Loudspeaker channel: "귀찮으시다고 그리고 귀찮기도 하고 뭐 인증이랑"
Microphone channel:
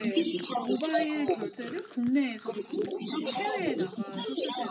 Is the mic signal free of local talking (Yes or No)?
No